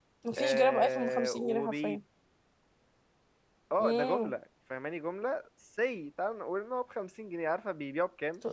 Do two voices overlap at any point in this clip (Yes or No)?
Yes